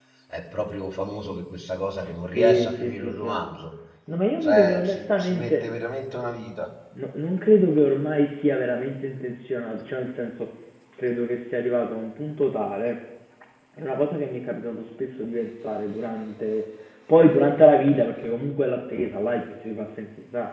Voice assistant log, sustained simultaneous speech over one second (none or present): present